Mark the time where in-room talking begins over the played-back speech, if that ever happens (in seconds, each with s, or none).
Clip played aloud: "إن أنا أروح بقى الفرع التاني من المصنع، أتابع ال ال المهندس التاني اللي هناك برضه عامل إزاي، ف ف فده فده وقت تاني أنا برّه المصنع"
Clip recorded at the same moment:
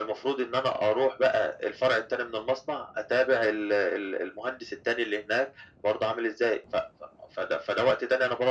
none